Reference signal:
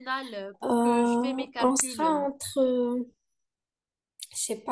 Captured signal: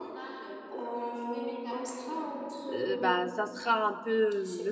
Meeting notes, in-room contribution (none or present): present